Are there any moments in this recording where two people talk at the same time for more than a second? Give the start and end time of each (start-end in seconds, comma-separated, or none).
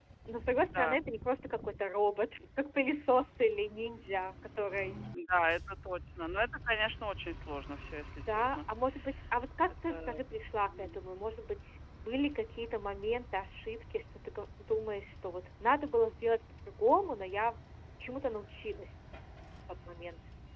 none